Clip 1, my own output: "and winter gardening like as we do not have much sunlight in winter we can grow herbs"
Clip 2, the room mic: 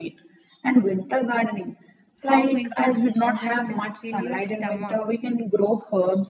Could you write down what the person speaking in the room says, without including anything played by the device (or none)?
how winter food doesn't just fill your stomach,